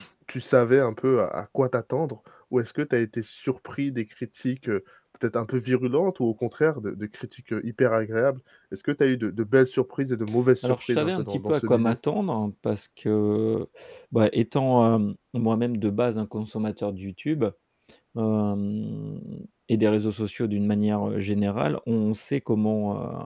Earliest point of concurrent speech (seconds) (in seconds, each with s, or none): 10.6 s